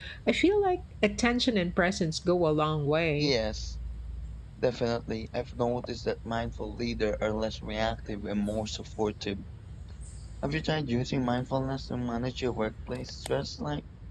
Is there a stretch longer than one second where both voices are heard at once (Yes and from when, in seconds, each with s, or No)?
No